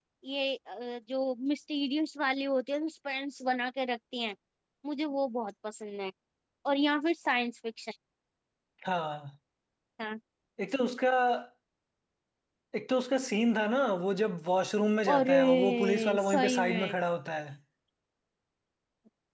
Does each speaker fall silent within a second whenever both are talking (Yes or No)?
No